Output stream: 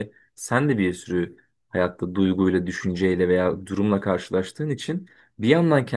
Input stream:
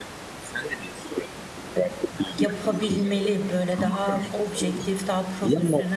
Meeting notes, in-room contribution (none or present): present